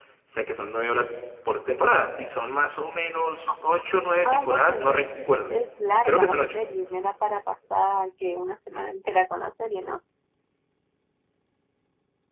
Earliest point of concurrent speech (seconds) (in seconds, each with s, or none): 4.2 s